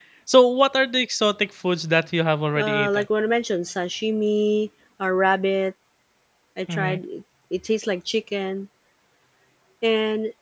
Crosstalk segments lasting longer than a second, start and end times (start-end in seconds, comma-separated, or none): none